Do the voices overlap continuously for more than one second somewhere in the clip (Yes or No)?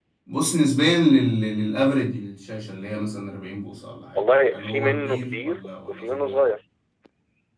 Yes